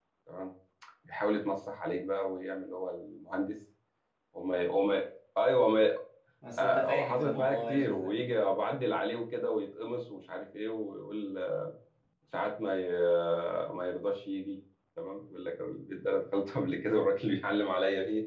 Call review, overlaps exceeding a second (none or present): present